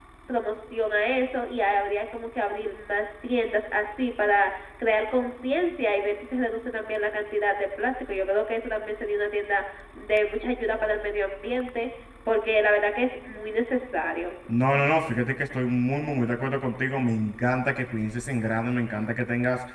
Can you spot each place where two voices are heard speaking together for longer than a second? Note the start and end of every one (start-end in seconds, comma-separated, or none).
none